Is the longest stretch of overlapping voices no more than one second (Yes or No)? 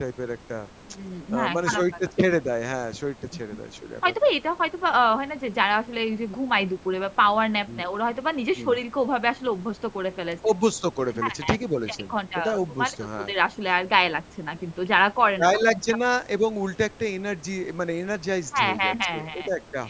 No